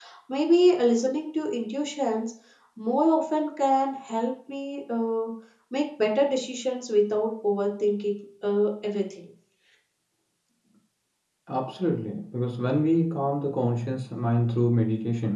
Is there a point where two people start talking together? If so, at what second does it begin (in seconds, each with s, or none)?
none